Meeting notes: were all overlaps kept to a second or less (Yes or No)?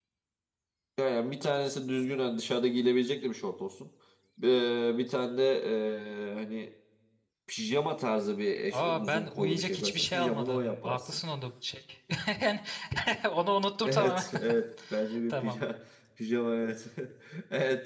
No